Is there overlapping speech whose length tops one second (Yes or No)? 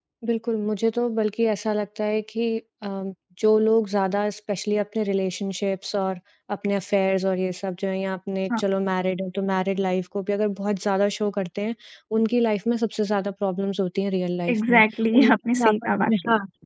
Yes